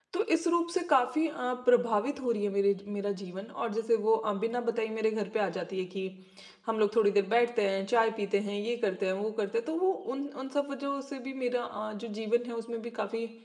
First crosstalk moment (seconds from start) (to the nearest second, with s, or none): none